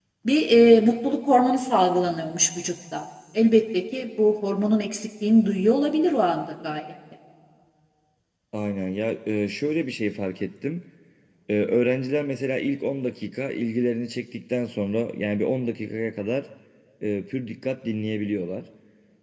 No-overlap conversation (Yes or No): Yes